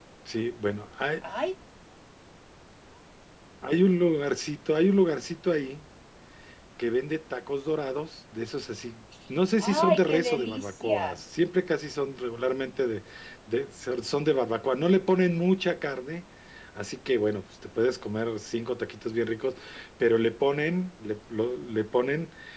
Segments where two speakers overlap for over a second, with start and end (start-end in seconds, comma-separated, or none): 9.6-11.2